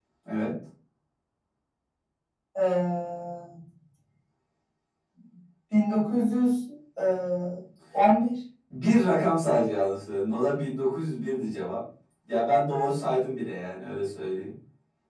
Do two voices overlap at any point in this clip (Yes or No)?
No